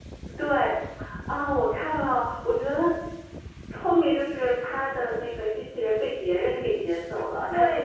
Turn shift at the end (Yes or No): Yes